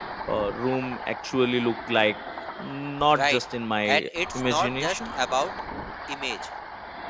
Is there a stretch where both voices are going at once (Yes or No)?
Yes